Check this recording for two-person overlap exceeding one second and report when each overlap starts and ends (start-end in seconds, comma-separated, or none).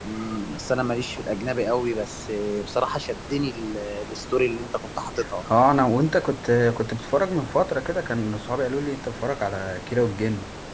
none